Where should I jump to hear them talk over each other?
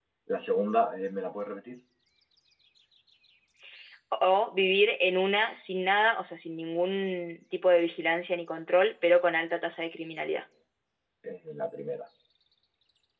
none

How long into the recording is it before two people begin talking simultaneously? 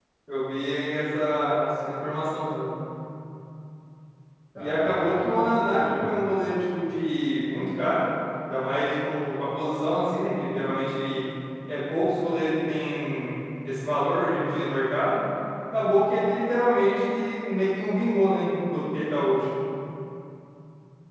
4.6 s

